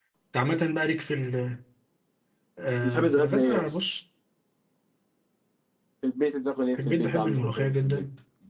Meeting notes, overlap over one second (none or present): present